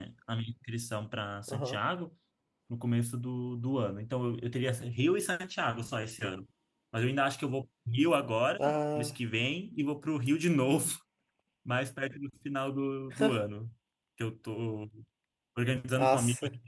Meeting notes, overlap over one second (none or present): none